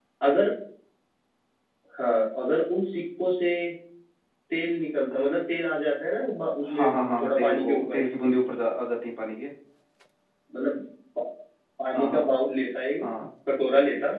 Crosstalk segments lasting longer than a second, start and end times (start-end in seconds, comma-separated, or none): 6.6-8.0